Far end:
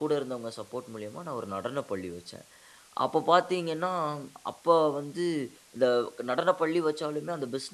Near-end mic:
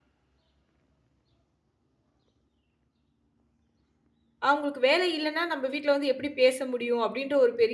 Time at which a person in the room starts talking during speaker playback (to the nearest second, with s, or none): 4 s